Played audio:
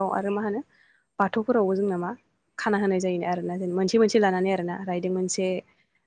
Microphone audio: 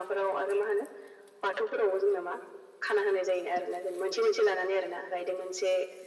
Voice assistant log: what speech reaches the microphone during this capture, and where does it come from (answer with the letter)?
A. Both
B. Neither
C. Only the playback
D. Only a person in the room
C